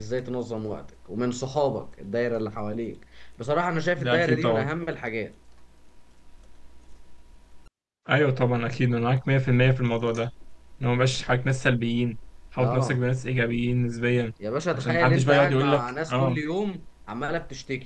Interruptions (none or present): present